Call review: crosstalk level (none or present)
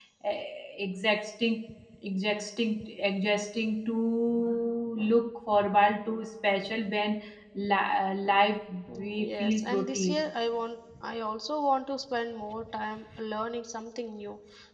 present